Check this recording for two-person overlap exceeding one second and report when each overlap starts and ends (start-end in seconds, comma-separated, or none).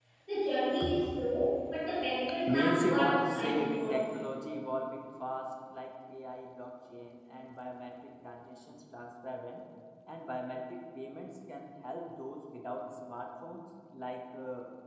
2.5-4.0